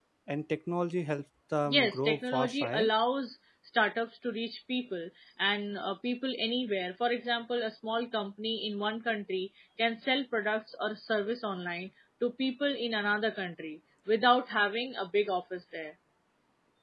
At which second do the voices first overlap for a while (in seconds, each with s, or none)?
1.7 s